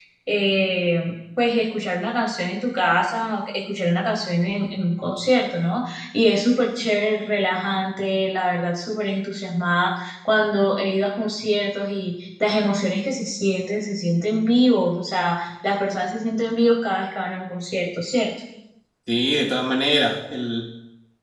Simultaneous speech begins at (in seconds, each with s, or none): none